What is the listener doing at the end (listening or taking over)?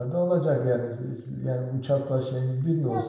taking over